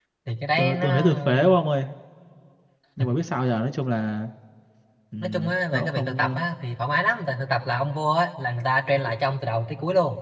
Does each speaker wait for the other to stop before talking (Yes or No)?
No